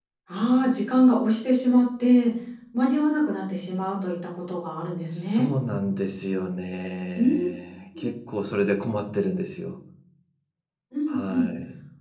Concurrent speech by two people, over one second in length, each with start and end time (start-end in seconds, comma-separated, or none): none